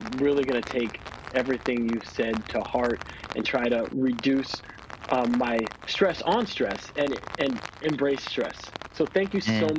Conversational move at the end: listening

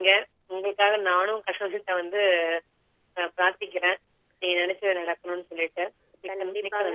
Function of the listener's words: taking over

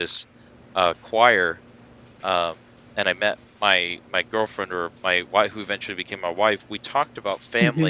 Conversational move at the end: listening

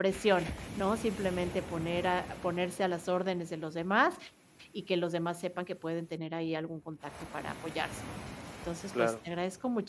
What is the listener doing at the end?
listening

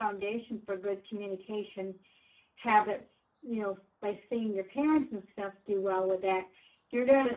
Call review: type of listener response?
listening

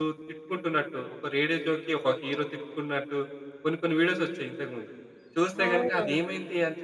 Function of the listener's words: listening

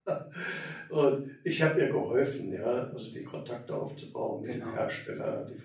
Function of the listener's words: listening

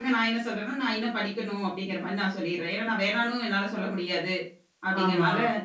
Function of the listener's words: listening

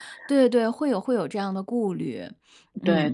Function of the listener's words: taking over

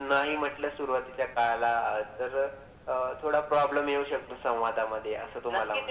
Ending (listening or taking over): taking over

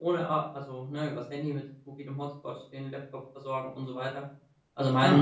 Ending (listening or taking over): listening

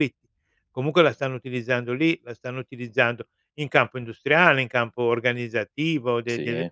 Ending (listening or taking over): listening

